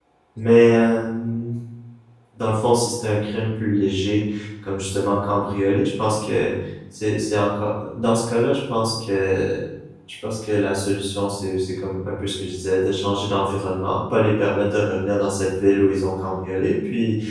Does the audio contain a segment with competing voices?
No

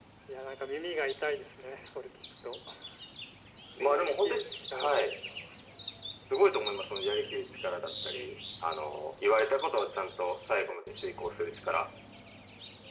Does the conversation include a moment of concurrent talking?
Yes, from 3.7 s

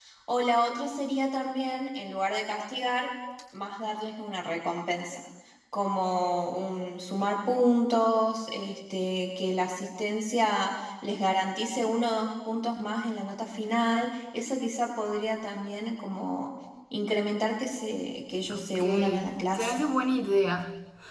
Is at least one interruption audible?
Yes, from 18.5 s

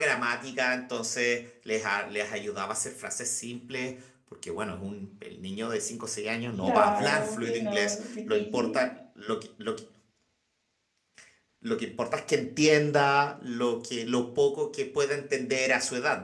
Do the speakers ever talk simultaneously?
Yes, from 6.6 s

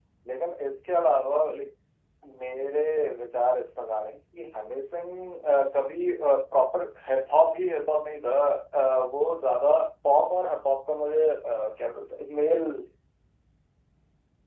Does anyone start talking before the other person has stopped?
No

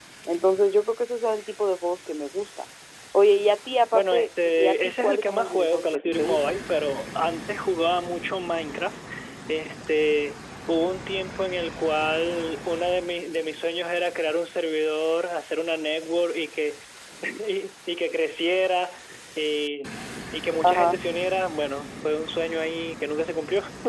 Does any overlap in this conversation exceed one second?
Yes, from 3.9 s

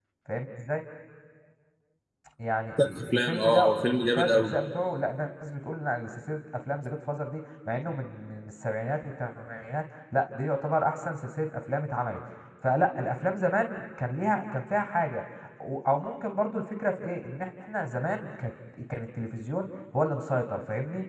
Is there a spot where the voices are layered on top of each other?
Yes, from 2.8 s

